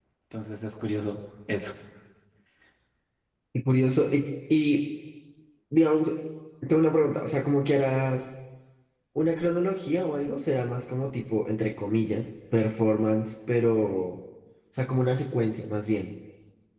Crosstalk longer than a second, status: none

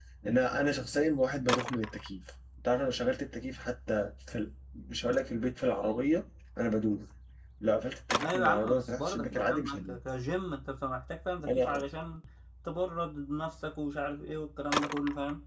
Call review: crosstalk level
present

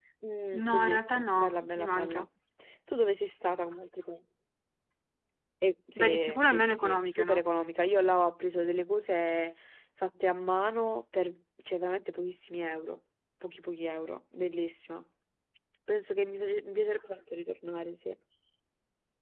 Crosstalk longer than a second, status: present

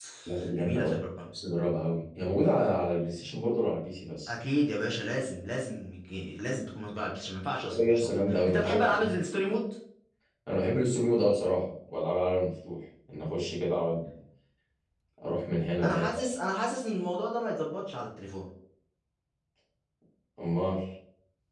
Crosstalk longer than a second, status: present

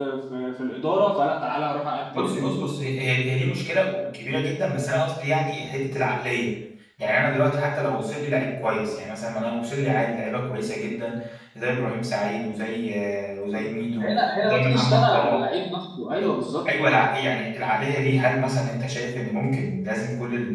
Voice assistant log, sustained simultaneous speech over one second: present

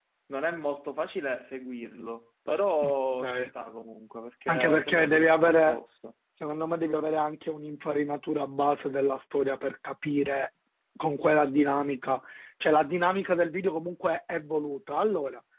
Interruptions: present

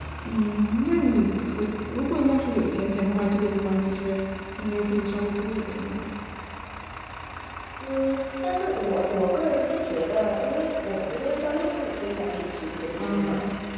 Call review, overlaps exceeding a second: none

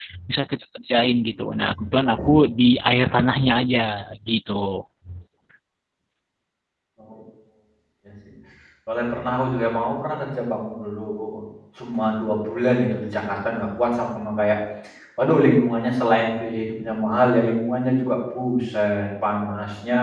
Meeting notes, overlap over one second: none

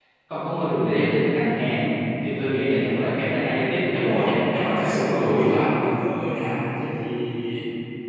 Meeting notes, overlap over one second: present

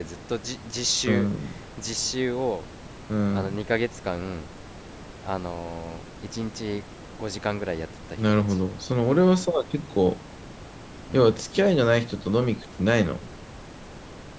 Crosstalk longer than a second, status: none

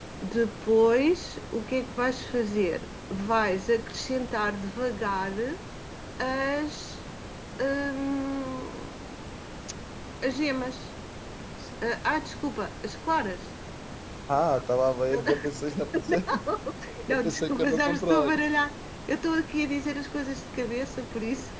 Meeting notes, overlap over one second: present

